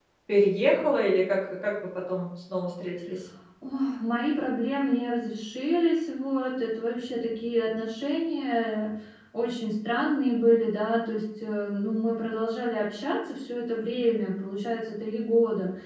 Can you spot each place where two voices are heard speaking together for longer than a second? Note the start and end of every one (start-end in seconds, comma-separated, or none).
none